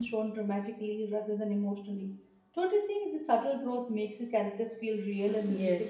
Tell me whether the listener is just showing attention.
No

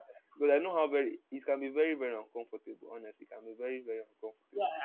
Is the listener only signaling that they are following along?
No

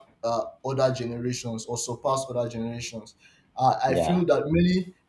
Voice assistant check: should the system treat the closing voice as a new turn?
No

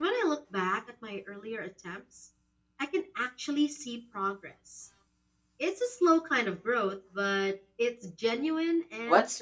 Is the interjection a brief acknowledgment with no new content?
No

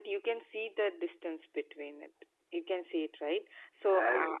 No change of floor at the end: Yes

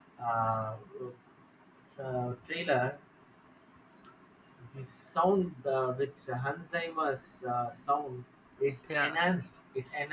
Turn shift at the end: No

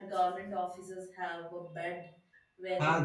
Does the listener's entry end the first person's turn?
Yes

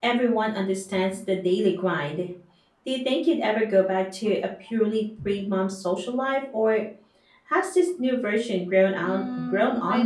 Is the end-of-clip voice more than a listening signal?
Yes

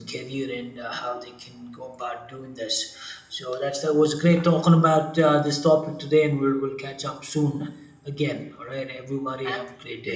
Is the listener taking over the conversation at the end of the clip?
Yes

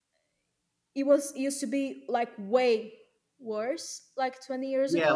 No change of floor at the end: No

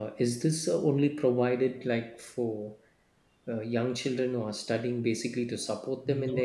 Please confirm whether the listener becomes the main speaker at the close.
Yes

